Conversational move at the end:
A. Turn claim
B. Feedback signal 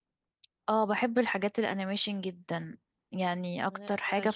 B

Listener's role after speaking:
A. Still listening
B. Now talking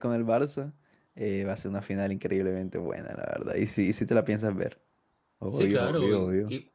B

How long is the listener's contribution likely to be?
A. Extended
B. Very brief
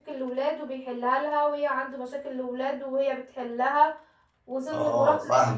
B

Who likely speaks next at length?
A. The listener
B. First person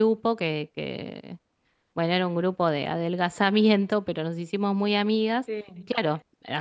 B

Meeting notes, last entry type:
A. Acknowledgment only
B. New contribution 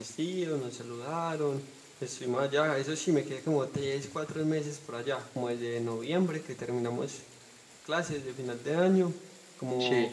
A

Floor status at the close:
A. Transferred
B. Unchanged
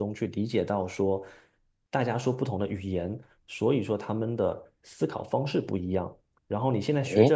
A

